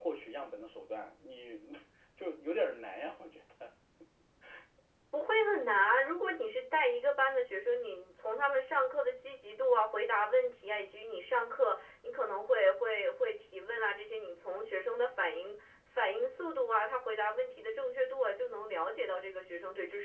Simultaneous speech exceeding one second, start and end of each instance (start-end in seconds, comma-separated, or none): none